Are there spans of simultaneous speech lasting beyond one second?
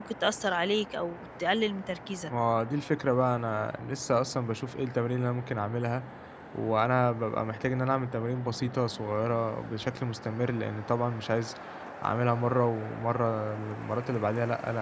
No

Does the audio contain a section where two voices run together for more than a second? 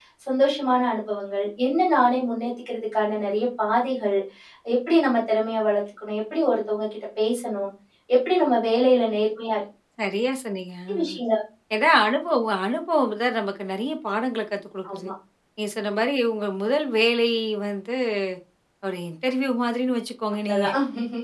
No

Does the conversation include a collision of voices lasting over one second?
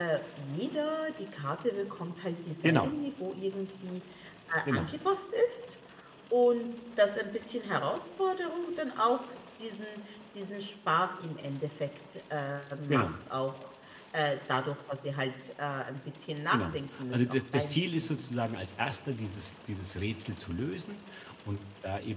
Yes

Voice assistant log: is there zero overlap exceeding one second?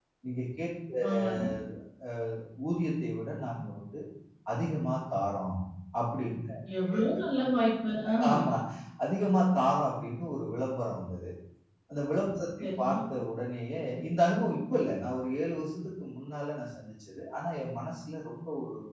Yes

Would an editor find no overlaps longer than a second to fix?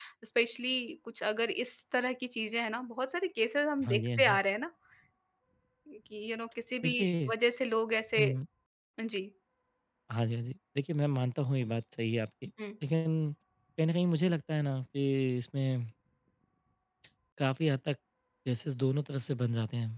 Yes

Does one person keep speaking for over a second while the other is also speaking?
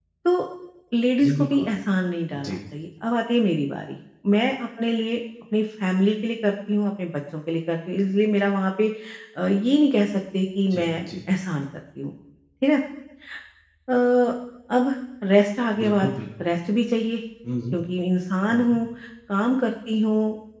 No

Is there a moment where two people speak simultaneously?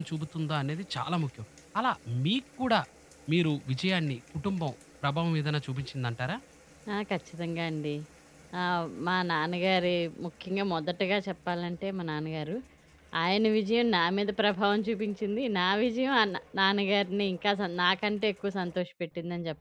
No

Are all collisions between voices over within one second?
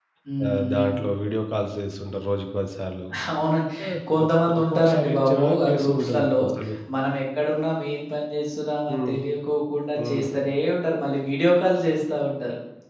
No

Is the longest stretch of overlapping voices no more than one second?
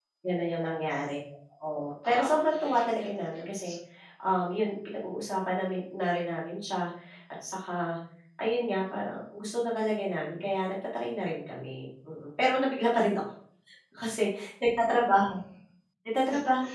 No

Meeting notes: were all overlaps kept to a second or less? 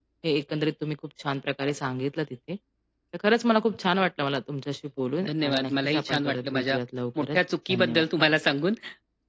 No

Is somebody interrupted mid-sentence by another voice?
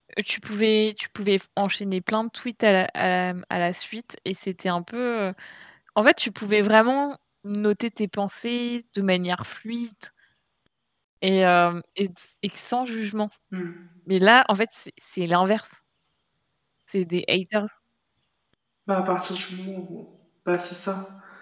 No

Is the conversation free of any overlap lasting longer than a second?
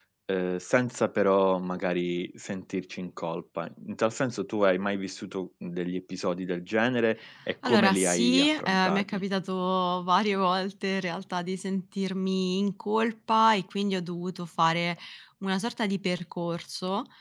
No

